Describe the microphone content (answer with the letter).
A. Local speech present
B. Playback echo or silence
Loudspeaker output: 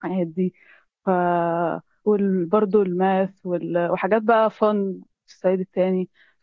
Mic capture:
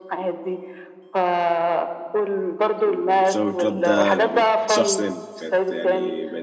A